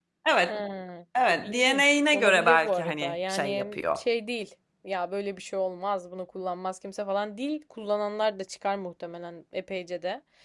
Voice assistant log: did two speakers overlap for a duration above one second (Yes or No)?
Yes